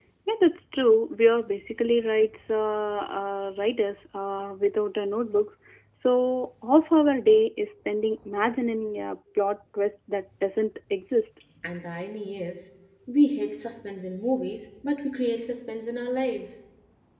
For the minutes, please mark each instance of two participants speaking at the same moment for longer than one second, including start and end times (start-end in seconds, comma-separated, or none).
none